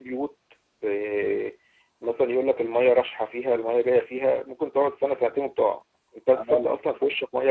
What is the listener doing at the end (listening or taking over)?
listening